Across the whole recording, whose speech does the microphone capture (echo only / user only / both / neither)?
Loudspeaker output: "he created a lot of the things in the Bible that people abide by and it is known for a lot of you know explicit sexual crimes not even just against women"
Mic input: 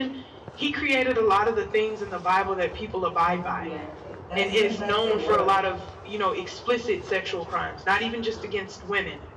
both